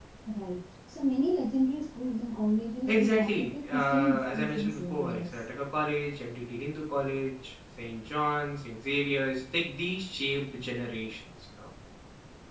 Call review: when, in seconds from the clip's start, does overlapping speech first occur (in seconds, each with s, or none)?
2.9 s